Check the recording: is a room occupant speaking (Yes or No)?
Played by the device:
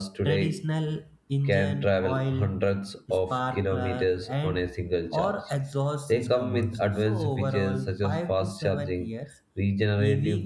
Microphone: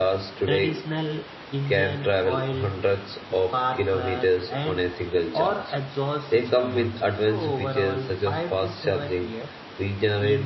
No